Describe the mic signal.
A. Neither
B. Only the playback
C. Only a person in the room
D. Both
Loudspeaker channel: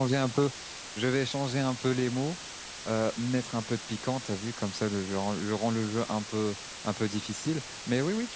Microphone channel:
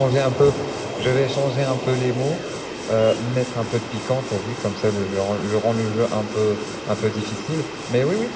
B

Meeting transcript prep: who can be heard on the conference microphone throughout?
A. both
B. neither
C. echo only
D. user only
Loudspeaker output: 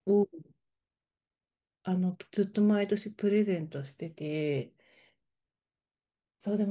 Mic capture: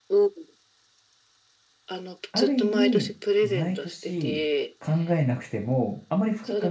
A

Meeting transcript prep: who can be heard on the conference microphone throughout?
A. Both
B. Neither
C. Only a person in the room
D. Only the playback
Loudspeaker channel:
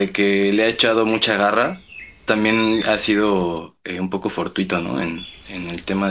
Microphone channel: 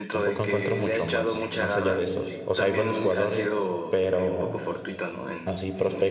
A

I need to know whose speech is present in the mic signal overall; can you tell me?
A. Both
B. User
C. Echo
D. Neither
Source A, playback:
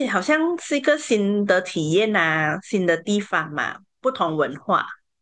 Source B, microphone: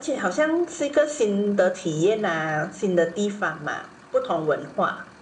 C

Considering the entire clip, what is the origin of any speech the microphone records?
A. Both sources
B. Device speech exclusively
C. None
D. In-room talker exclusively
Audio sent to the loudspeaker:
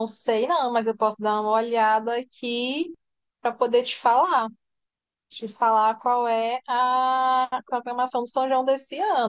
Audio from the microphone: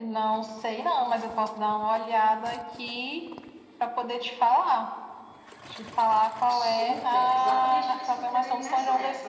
A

